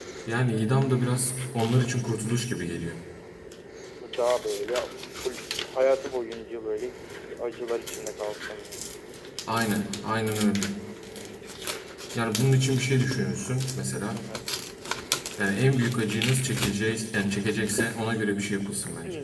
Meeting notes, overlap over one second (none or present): none